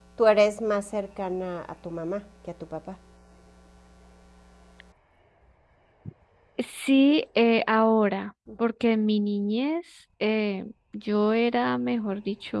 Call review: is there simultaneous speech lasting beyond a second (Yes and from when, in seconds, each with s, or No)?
No